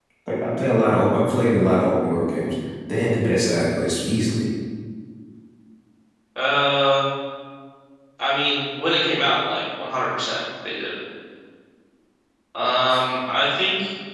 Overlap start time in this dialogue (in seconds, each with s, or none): none